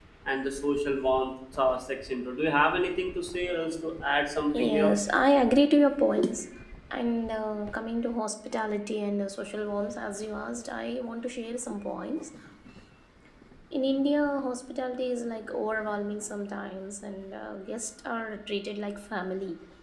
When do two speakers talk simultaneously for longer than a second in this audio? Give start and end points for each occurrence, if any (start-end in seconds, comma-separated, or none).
none